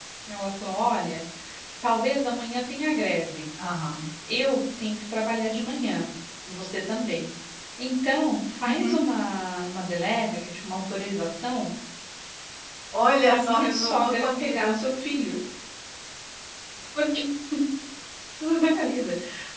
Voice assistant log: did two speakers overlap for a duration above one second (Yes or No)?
Yes